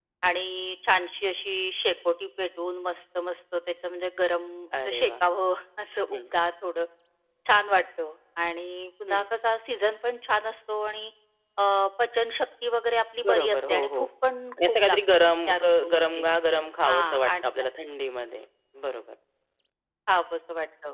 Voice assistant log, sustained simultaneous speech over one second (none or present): present